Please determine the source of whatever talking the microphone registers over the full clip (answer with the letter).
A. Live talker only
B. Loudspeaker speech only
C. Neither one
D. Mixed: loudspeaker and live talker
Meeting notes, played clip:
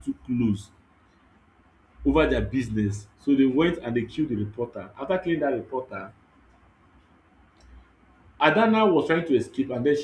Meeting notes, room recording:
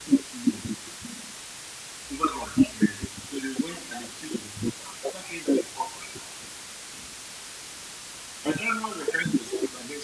B